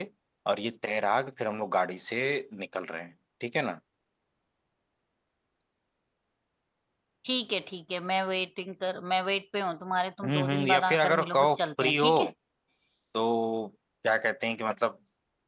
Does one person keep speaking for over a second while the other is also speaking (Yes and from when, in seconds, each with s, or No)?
Yes, from 10.2 s